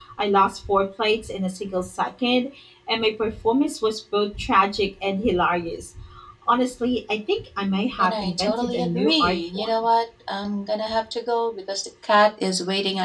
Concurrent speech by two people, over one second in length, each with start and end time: 8.0-9.7

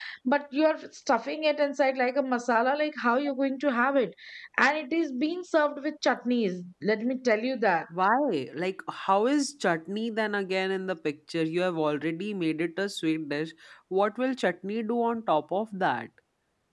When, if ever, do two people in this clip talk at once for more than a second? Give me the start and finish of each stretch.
none

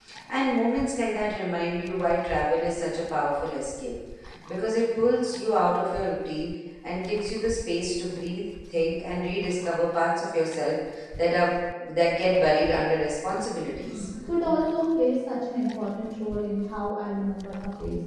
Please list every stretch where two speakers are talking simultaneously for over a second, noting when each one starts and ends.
none

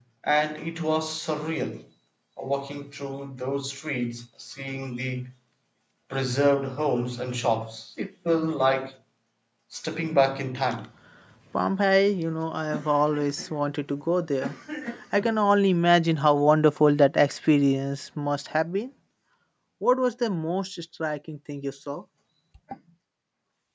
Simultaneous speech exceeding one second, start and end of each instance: none

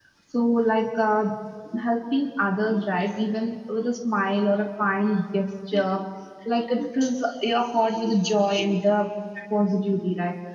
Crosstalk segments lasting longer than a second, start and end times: none

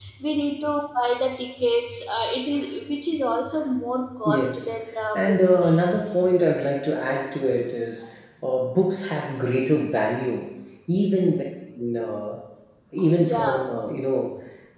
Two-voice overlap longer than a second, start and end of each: 4.2-5.6

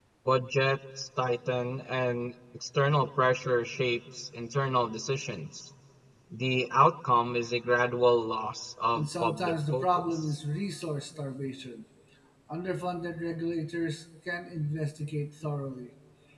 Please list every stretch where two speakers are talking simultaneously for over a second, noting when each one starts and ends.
9.0-10.4

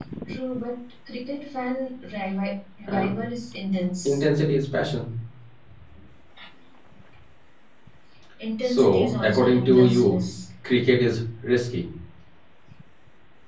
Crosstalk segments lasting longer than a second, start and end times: 8.6-10.2

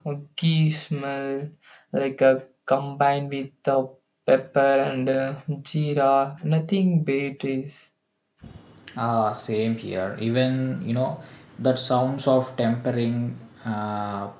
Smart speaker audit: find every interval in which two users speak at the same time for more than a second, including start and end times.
none

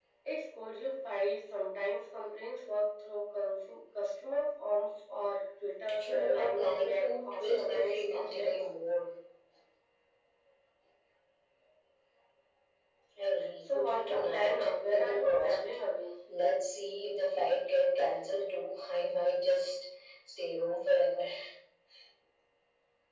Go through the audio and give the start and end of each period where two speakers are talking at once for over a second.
5.9-8.6, 13.6-15.6

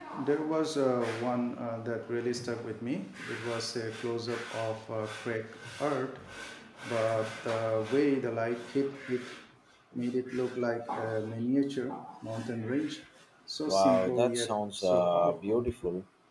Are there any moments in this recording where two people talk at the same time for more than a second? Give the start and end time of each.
13.7-15.7

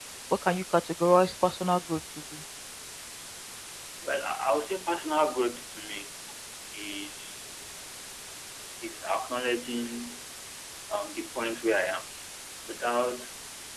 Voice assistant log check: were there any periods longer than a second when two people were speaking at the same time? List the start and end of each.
none

